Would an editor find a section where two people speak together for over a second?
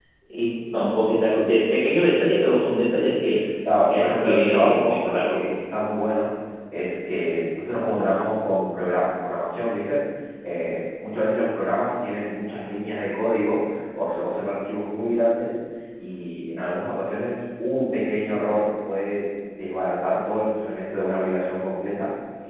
Yes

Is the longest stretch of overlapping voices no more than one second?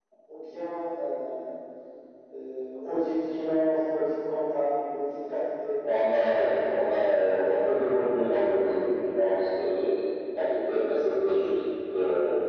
Yes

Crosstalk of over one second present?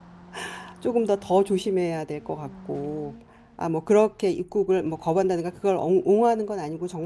No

